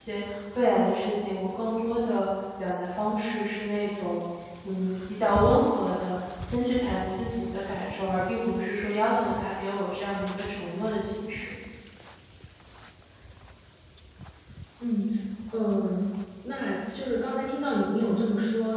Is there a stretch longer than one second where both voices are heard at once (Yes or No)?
No